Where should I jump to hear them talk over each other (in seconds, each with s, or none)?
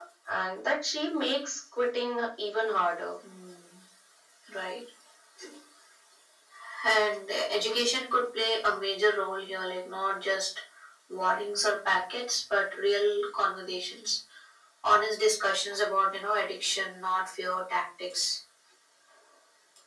none